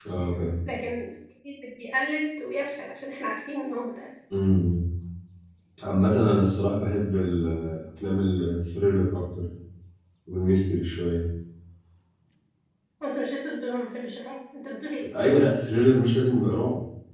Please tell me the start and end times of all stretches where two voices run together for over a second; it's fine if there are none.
none

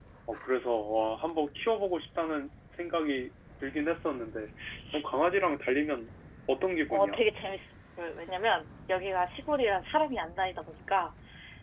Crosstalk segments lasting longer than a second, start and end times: none

